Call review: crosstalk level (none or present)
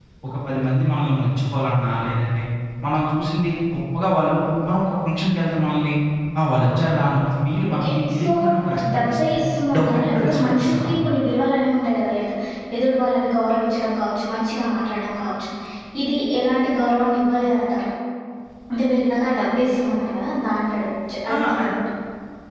present